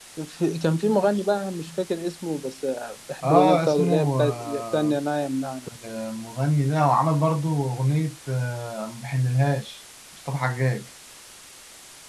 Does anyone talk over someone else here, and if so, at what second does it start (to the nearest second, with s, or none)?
3 s